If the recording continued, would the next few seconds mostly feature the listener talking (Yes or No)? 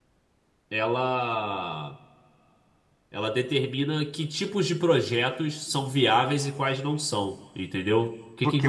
Yes